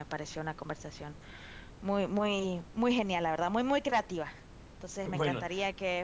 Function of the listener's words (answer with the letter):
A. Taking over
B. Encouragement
B